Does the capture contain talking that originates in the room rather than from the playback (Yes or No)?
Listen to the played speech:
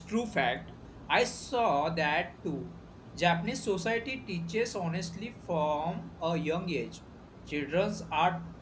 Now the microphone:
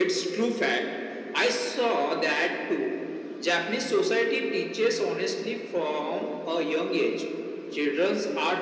No